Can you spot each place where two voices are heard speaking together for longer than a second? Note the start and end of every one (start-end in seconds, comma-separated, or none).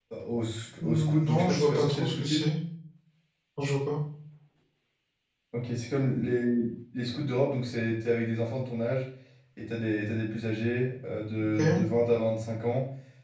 0.8-2.5